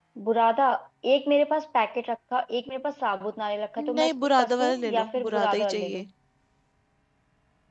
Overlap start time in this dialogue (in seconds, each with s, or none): 3.8 s